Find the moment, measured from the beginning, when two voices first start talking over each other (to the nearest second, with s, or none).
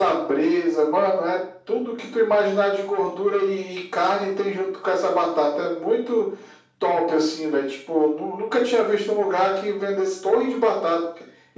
none